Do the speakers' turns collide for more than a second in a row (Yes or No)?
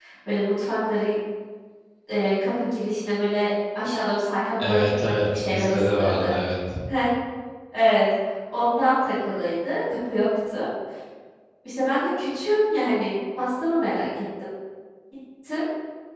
Yes